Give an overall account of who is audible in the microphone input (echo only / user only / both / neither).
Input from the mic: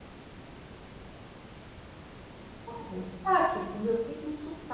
user only